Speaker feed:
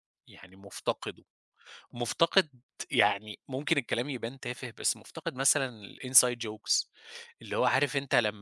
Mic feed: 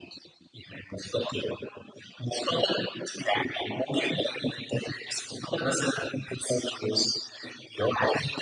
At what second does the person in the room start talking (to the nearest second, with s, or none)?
none